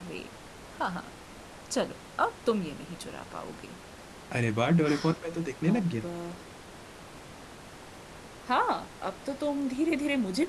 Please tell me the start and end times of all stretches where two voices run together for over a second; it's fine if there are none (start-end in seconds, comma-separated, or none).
none